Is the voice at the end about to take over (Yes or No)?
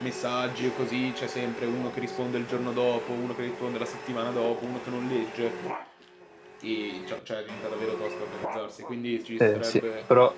Yes